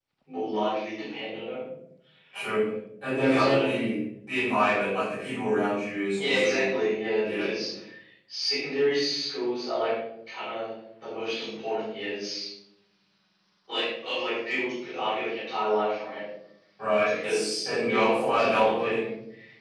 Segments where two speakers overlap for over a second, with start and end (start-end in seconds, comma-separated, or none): 17.1-19.0